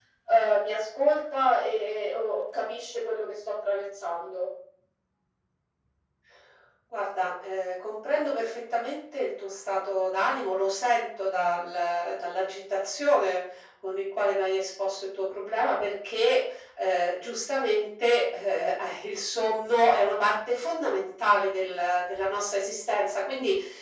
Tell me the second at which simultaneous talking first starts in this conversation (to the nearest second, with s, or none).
none